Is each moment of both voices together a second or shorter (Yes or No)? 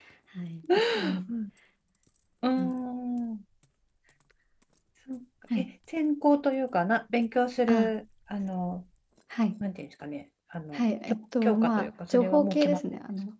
No